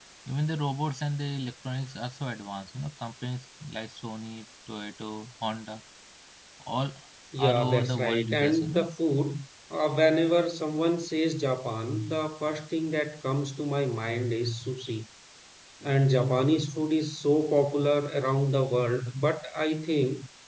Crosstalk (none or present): present